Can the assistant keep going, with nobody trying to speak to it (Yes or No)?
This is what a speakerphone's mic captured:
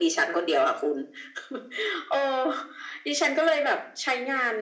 Yes